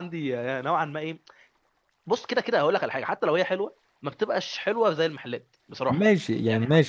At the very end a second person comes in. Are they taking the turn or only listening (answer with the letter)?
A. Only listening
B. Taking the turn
B